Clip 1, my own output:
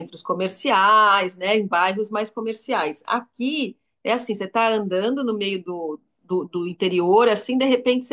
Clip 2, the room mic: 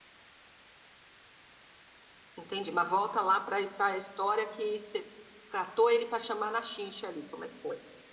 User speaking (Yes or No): Yes